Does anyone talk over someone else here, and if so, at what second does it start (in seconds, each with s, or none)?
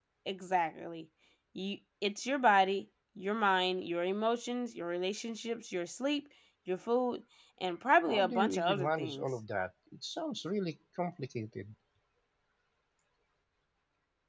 8.1 s